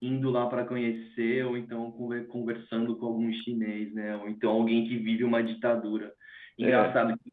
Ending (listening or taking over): listening